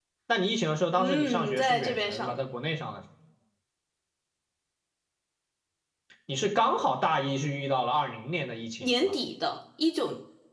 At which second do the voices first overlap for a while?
1.0 s

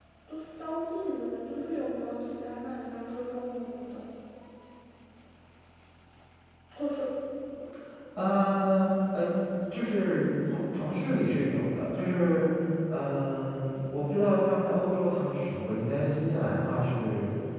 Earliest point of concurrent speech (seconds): none

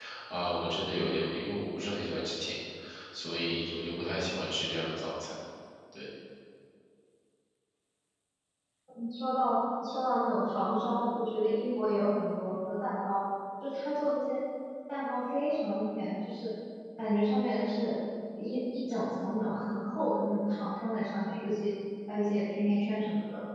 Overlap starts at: none

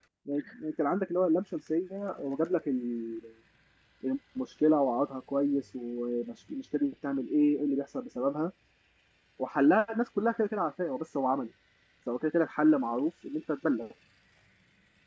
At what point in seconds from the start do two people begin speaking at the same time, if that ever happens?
none

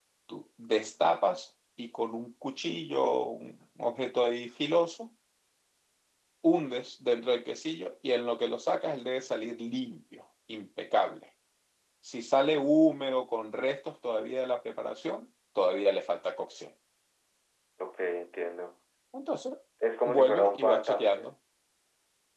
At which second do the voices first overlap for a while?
20.1 s

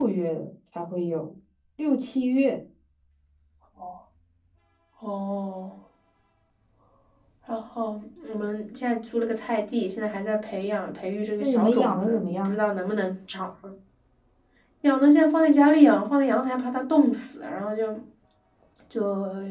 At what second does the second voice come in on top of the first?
11.4 s

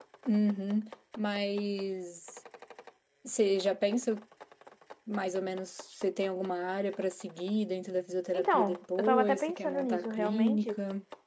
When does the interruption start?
8.3 s

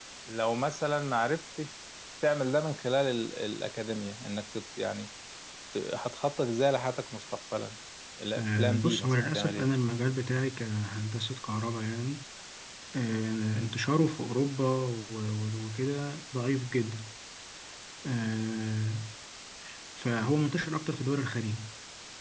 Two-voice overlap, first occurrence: 8.4 s

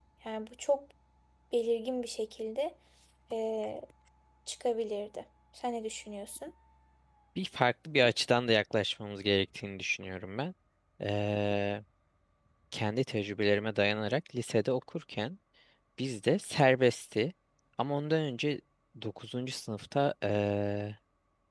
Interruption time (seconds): none

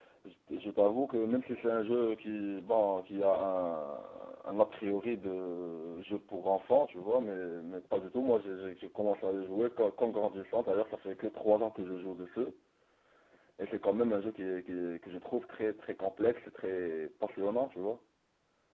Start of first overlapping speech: none

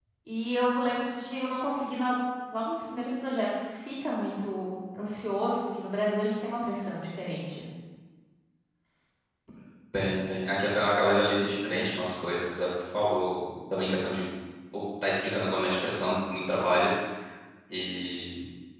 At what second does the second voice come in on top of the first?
none

